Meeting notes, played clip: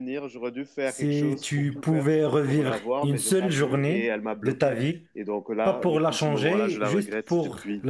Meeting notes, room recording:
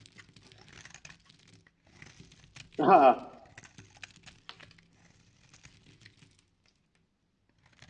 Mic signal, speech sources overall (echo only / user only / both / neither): user only